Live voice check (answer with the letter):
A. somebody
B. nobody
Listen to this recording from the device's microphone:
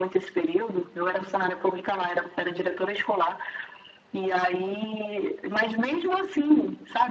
B